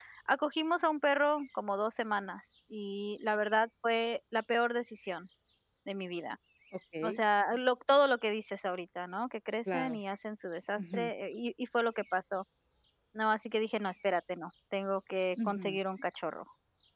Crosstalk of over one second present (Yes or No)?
No